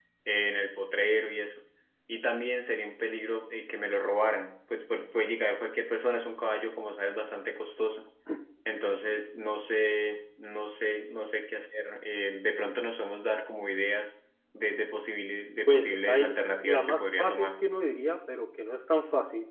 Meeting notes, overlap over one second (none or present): present